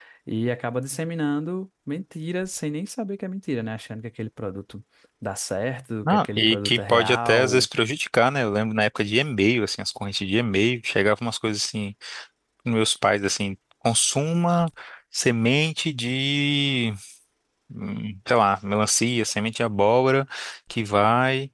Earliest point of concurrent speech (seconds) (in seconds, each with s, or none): 6.0 s